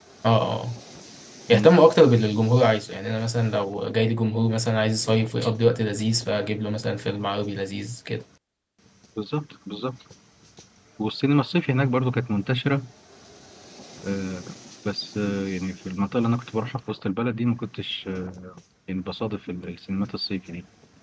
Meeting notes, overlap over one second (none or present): none